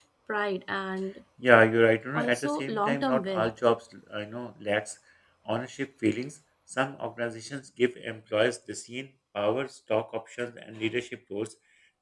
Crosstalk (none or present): present